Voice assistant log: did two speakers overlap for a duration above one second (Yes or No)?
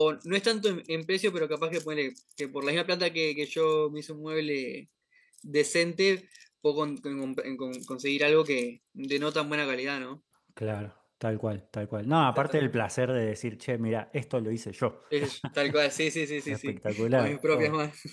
Yes